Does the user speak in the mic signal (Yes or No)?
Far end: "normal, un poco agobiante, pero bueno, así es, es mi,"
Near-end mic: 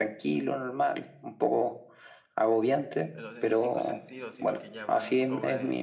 Yes